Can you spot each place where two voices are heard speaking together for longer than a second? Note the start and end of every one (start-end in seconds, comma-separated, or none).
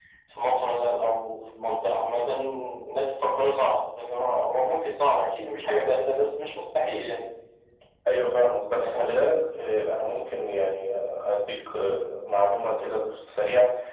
none